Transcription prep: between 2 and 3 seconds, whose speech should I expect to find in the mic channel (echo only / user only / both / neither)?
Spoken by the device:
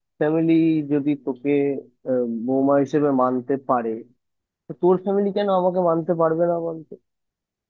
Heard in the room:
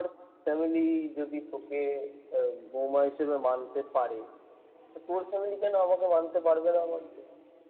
echo only